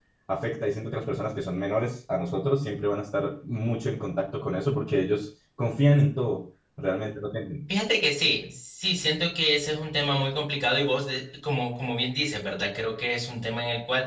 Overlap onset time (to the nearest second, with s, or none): none